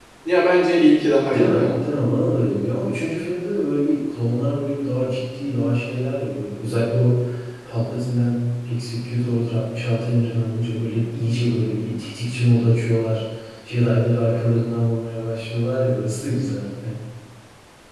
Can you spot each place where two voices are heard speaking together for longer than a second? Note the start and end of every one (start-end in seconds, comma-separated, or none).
none